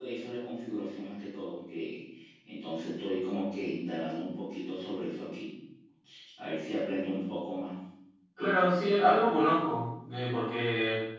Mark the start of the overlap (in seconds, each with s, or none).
none